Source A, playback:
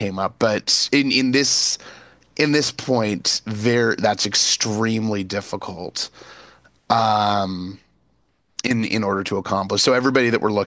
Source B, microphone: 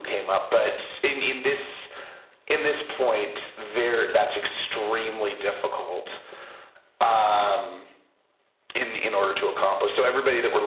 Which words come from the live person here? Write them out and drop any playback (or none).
none